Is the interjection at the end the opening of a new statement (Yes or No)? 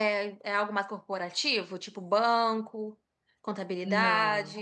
Yes